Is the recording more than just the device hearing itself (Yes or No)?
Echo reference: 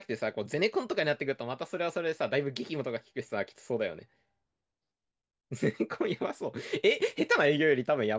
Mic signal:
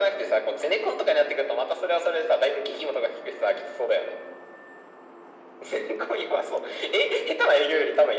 No